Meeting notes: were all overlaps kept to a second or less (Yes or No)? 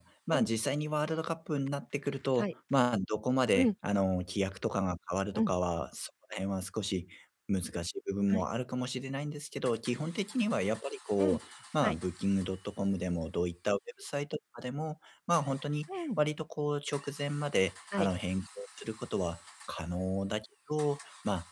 Yes